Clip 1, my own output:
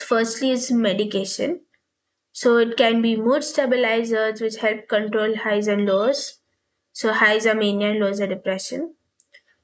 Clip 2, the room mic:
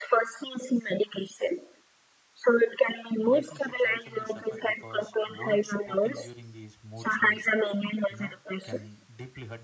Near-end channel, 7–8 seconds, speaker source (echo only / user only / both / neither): both